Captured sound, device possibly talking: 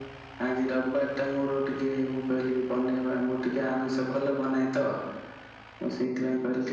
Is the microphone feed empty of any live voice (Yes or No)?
Yes